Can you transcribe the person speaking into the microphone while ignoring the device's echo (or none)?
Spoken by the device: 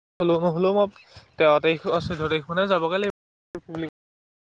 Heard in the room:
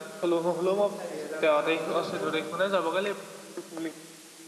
হেই চাৰি হোজাৰ বাহ হ'লেও আকৌ